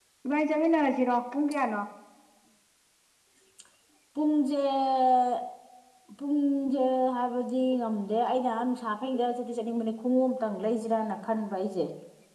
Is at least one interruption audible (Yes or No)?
No